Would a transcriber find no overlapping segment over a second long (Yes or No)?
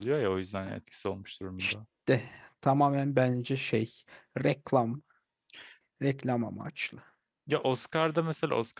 Yes